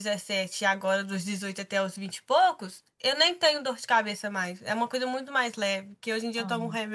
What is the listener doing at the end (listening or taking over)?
listening